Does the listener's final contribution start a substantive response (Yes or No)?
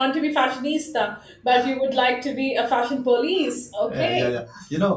Yes